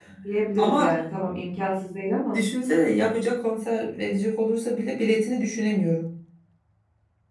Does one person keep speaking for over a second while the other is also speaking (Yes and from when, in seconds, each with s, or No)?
No